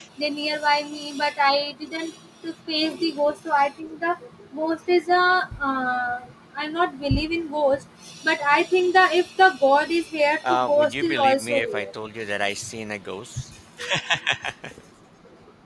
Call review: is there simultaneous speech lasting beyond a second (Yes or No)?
Yes